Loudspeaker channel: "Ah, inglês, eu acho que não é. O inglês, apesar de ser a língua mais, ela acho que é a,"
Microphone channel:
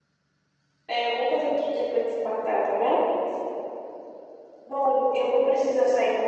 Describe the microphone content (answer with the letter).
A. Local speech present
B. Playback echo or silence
A